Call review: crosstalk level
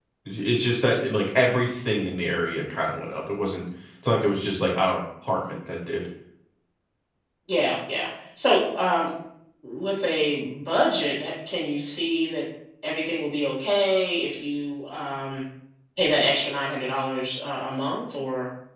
none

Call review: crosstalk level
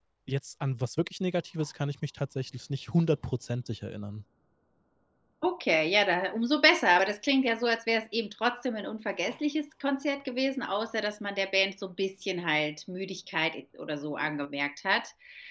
none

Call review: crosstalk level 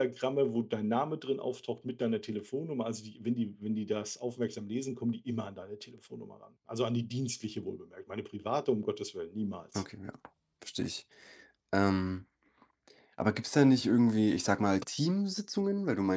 none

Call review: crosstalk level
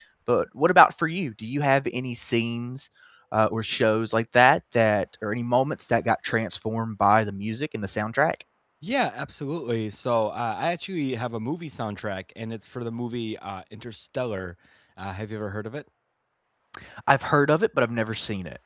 none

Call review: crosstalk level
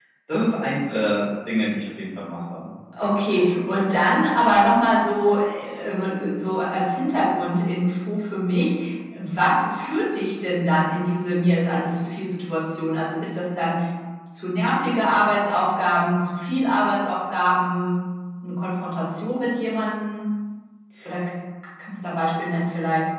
none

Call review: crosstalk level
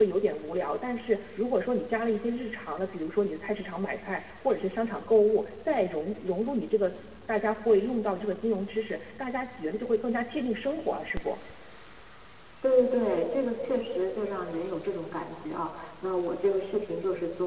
none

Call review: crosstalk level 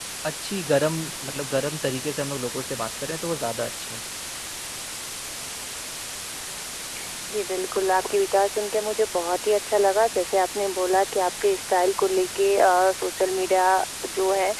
none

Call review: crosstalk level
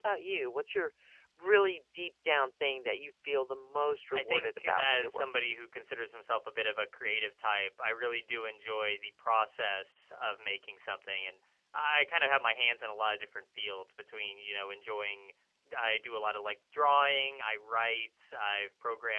present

